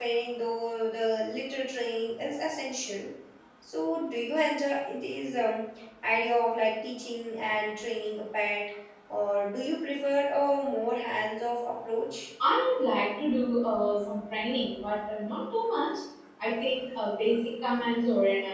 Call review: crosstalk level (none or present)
none